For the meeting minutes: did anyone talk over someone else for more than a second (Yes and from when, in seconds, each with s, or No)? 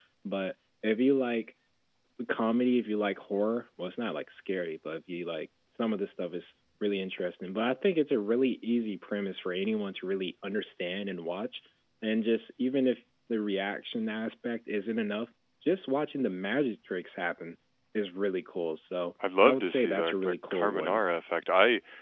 Yes, from 19.2 s